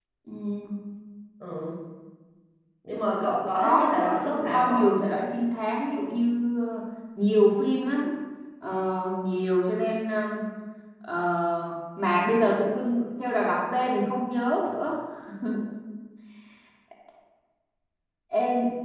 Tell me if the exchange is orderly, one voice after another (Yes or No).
No